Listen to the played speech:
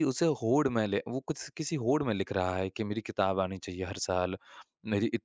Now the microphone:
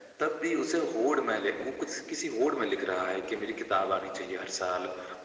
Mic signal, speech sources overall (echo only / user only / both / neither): echo only